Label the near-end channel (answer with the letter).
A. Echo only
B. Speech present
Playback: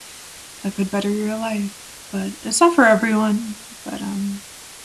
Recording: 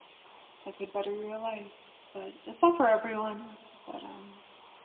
A